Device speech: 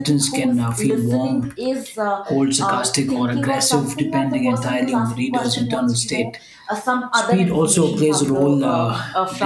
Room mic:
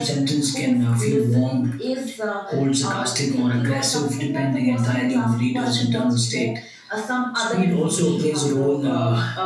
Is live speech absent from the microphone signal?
Yes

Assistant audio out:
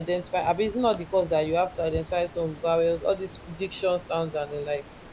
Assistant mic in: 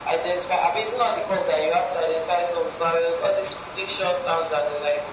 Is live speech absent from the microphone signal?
Yes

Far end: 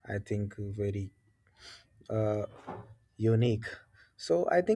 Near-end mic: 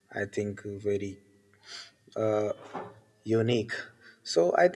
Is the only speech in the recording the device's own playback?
Yes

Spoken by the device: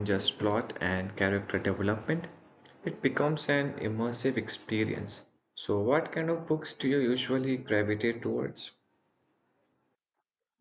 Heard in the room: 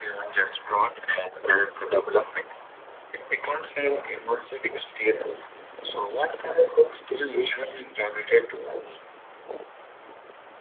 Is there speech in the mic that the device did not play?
No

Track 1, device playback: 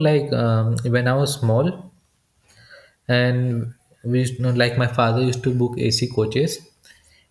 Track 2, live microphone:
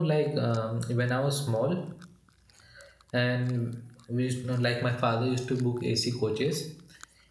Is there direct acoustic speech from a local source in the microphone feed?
No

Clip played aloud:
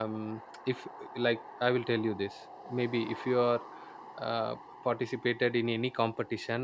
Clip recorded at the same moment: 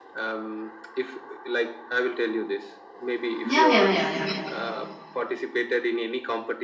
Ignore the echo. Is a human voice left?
Yes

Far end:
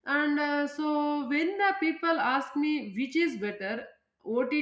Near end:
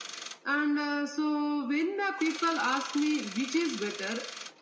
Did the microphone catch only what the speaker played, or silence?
Yes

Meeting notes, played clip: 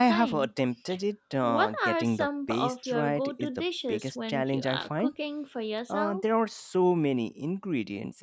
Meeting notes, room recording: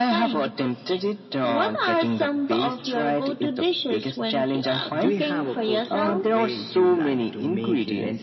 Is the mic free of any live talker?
No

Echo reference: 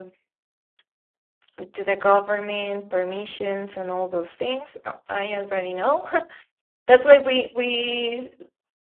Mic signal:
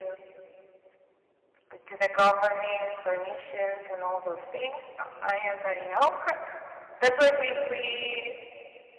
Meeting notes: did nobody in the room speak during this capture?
Yes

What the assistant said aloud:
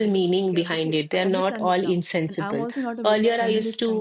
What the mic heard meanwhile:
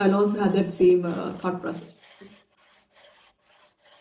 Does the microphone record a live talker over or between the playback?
Yes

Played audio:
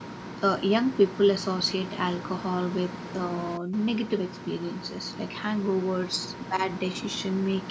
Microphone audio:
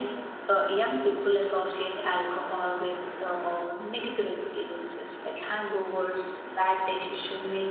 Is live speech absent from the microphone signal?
Yes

